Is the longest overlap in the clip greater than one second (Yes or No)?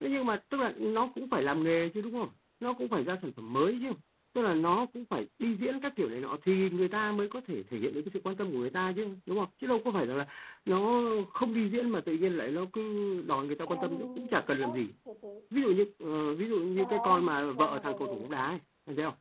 Yes